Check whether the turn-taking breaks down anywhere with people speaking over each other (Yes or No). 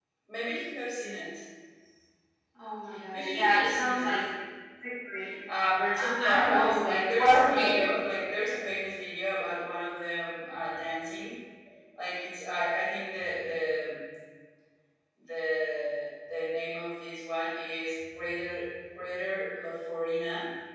Yes